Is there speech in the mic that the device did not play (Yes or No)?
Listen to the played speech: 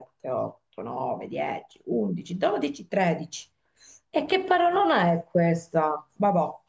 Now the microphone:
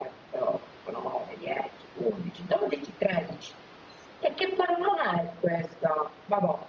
No